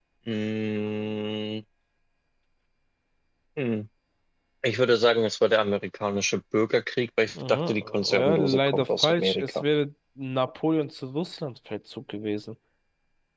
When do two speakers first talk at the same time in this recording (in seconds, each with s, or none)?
7.3 s